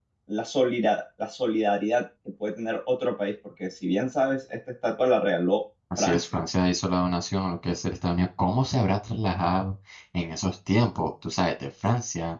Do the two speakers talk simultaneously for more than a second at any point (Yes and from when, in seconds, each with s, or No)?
No